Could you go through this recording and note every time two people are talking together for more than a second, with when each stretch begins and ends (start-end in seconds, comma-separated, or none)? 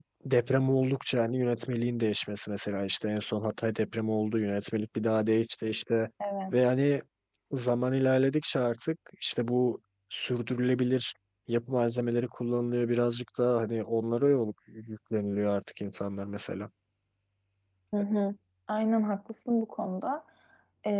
none